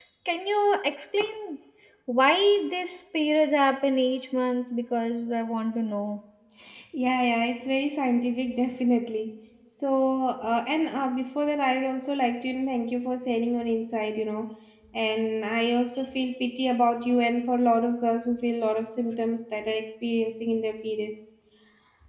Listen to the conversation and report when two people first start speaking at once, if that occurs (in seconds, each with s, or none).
none